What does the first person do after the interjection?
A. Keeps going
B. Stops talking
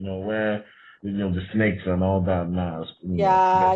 B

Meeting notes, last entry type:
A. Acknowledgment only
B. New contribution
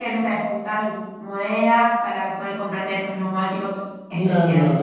B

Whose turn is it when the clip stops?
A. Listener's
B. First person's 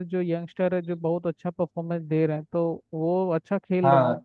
A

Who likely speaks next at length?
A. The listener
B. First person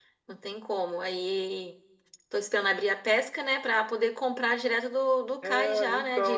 A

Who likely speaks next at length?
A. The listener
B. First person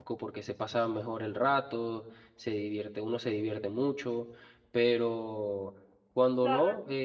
A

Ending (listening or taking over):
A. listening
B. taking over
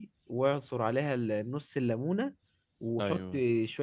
A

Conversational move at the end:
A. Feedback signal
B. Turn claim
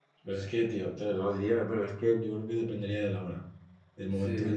A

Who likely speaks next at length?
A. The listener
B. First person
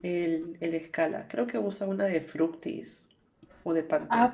A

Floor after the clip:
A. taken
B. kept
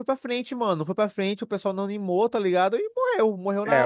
A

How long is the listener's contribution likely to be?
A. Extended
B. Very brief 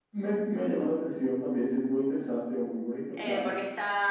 A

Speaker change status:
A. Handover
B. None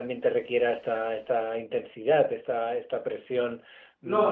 A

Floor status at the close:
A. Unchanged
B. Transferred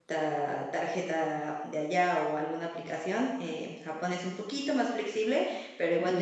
A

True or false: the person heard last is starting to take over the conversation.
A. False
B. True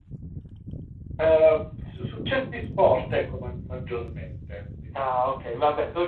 B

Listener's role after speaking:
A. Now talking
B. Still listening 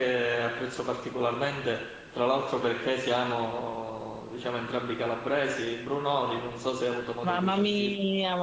A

